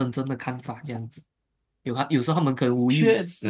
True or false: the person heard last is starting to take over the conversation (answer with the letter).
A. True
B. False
B